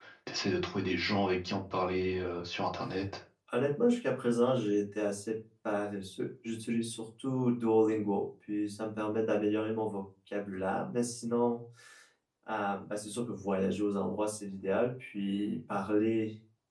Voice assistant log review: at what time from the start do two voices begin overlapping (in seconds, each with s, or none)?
none